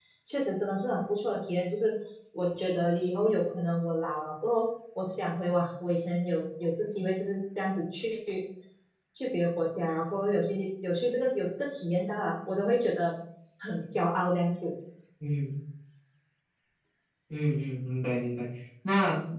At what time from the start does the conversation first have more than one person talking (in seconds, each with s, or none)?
none